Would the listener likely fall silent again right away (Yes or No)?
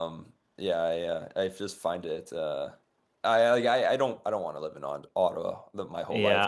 No